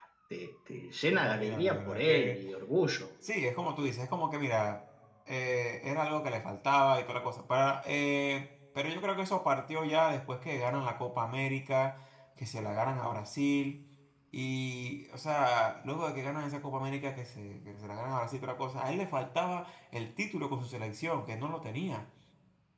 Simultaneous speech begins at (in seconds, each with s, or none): 1.1 s